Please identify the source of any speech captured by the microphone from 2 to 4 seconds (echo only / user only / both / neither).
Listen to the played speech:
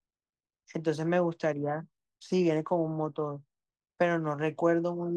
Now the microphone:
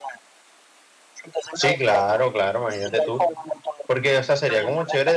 both